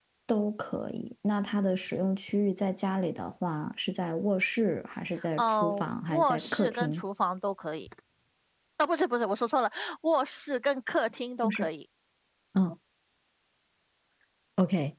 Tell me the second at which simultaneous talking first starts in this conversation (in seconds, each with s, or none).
5.4 s